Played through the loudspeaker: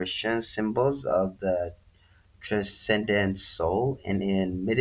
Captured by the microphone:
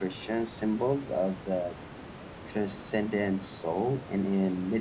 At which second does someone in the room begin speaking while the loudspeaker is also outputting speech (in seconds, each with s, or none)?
none